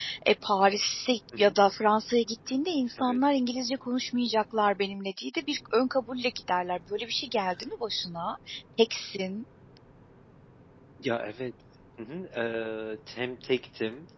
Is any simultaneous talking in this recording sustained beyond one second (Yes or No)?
No